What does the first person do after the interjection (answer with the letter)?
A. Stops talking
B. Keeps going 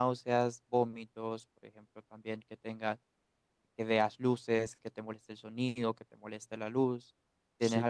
A